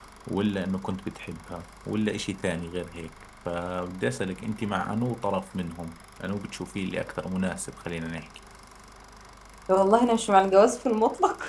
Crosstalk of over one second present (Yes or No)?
No